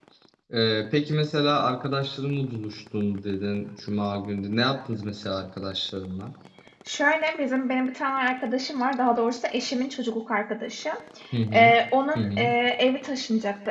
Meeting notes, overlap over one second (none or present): none